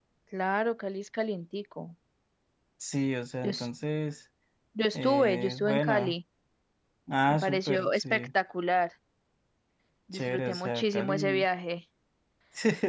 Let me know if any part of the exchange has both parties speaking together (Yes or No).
Yes